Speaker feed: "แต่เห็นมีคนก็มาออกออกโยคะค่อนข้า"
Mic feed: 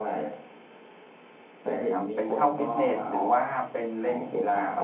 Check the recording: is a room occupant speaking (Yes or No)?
Yes